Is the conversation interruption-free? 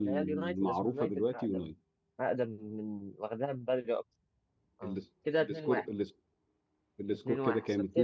No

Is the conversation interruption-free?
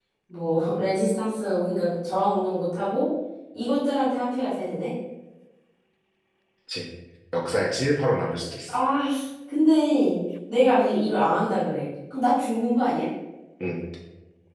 Yes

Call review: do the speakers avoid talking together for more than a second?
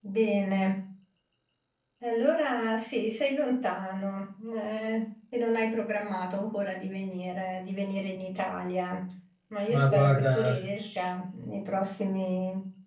No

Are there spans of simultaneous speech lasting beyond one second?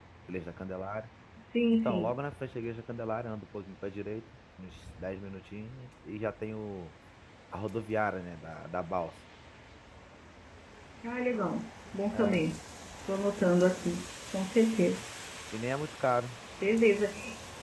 No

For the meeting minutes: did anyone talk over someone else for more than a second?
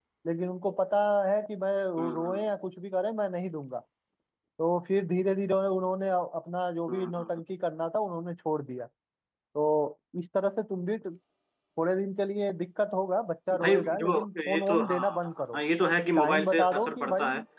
Yes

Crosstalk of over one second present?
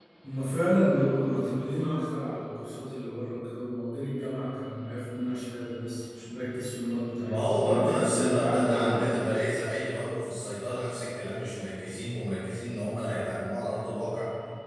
Yes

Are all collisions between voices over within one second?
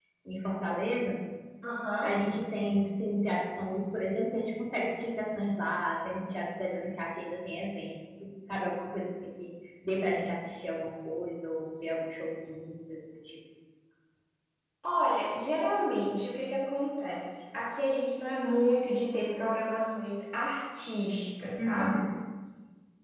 Yes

